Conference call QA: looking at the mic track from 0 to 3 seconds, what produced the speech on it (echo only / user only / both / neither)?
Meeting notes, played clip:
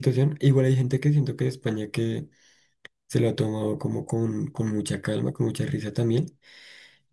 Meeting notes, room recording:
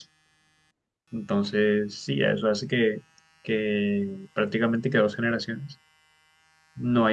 user only